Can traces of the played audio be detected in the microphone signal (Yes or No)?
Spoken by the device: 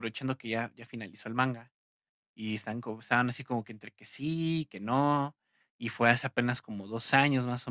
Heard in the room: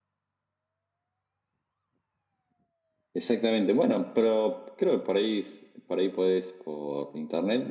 No